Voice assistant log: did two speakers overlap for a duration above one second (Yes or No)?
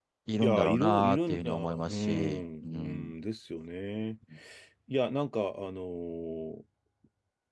Yes